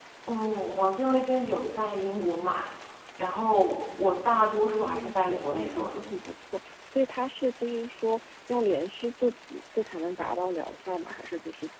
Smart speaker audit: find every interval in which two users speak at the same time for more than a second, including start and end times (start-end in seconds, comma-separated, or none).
4.4-6.0